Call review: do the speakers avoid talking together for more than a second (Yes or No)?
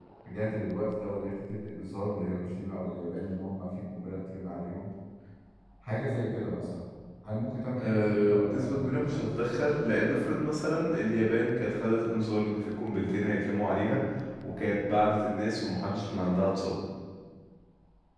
No